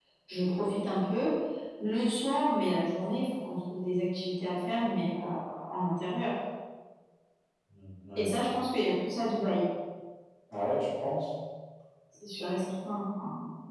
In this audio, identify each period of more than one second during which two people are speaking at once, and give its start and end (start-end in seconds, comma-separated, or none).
none